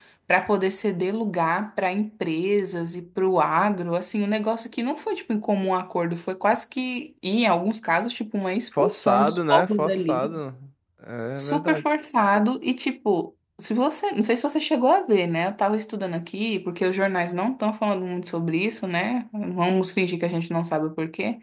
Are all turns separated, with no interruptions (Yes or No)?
No